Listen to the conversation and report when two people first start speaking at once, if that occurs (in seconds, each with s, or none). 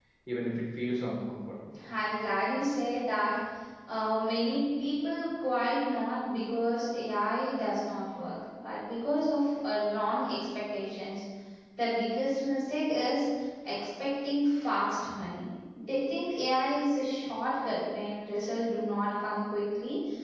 none